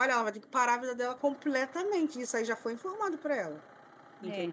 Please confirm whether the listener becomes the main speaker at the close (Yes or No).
Yes